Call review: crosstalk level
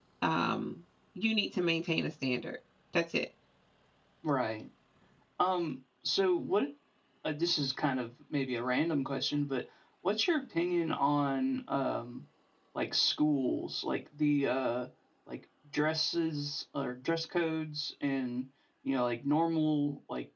none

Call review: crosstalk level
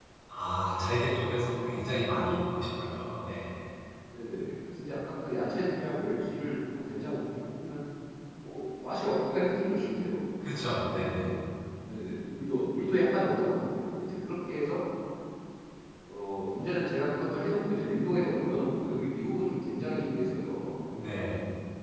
none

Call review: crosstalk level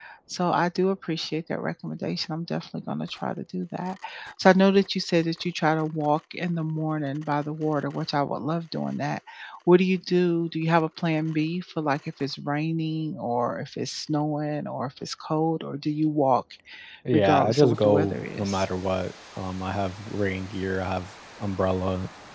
present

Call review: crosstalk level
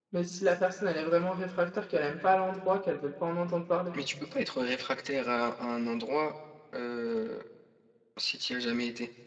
none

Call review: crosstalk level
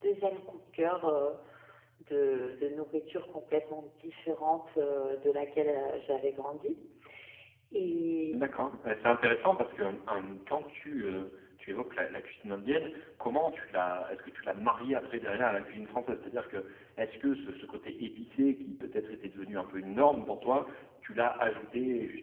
none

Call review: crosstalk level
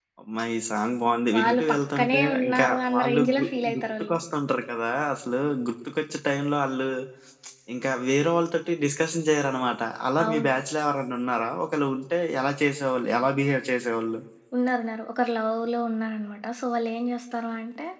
present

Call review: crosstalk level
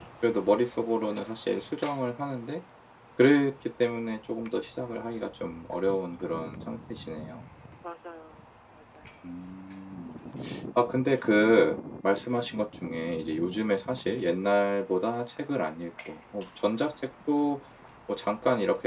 none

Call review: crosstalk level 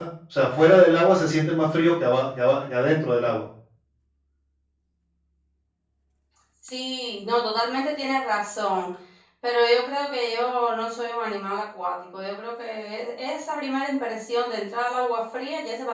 none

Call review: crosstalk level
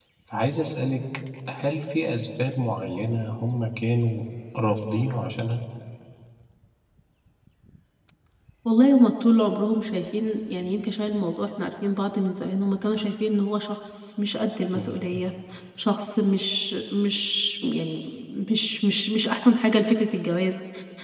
none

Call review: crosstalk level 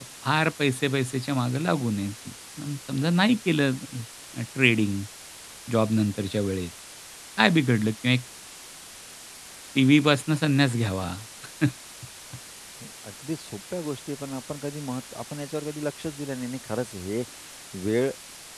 none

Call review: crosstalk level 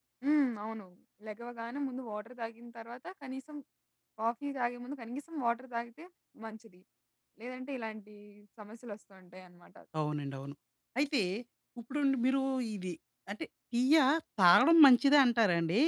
none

